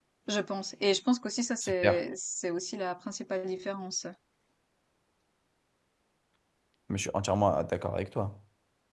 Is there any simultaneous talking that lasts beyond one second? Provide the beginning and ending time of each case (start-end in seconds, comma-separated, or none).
none